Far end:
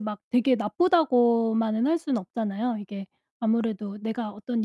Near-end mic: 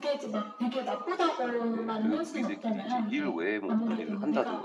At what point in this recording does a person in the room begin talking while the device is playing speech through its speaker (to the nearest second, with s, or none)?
2 s